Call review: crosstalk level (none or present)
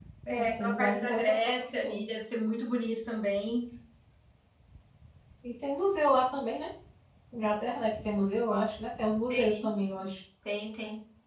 present